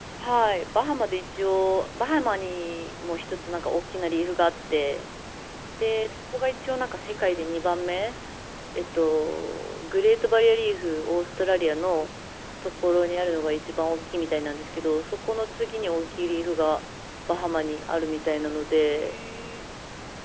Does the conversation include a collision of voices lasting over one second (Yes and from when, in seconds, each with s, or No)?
No